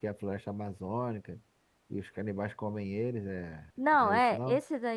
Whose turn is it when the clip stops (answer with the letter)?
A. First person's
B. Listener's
B